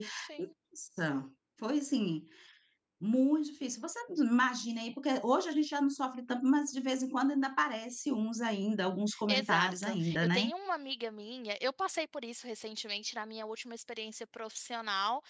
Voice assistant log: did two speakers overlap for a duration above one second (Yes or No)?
Yes